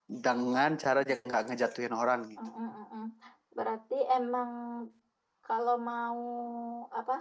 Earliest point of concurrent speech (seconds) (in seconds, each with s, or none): none